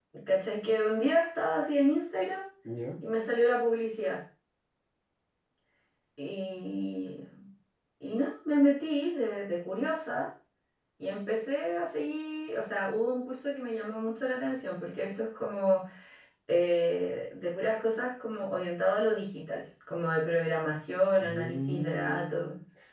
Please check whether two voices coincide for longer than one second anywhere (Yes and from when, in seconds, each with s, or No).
Yes, from 21.2 s